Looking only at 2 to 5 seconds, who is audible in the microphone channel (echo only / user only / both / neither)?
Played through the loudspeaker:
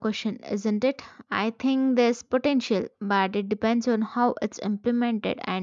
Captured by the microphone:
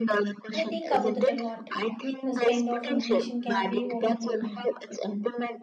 both